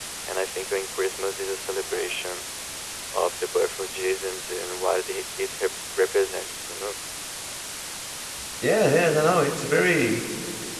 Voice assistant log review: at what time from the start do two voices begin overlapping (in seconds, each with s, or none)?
none